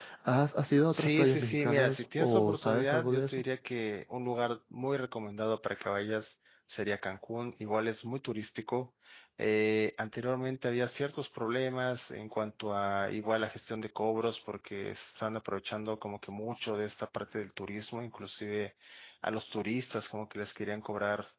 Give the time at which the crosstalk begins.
0.9 s

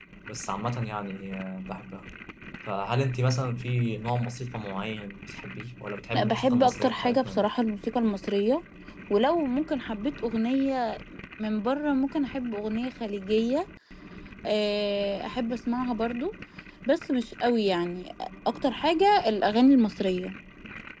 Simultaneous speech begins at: 6.1 s

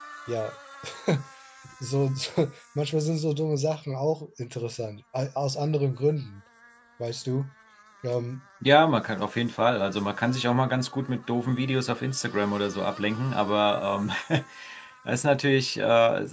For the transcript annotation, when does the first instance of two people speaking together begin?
none

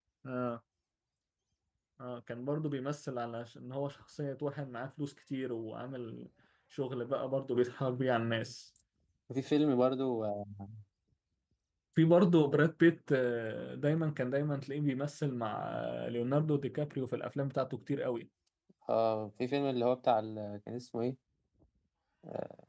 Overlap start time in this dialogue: none

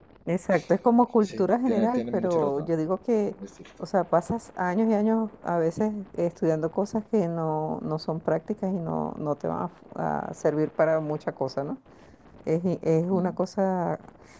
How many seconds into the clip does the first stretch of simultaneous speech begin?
1.3 s

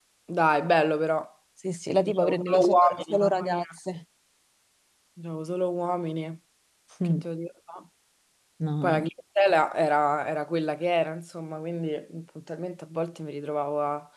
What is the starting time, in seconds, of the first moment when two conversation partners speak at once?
2.0 s

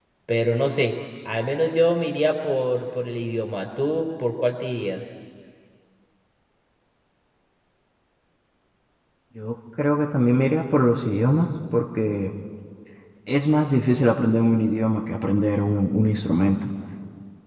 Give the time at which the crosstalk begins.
none

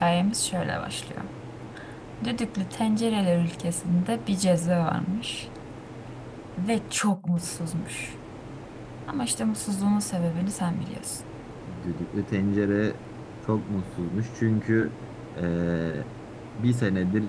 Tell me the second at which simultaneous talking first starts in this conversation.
none

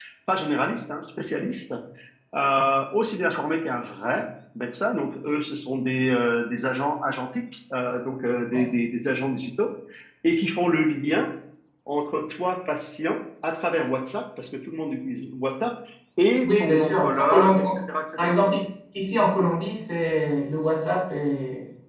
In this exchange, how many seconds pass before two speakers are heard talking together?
16.4 s

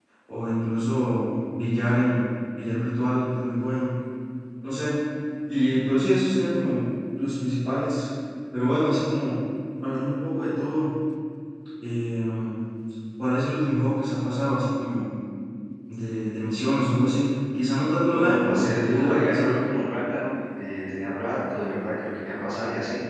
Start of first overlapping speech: 18.1 s

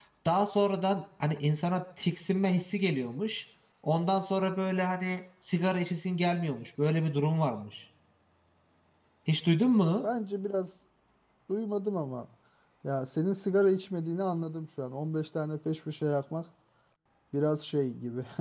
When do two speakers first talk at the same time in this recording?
none

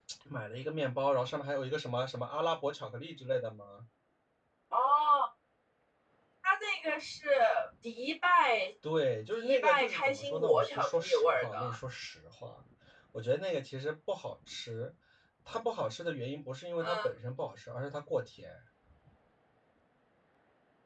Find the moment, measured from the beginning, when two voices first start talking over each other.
9.4 s

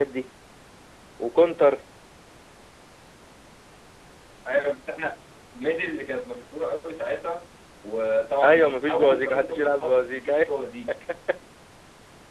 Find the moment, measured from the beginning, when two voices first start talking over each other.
8.4 s

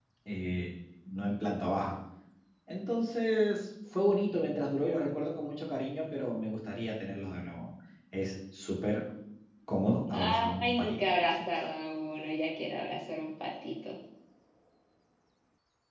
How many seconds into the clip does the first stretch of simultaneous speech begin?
10.1 s

